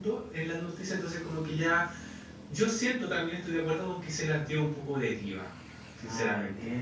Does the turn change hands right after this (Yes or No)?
Yes